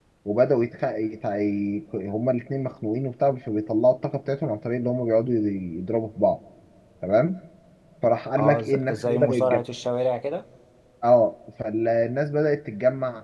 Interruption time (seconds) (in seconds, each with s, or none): 8.4 s